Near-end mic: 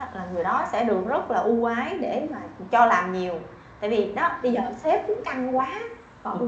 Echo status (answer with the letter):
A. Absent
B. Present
A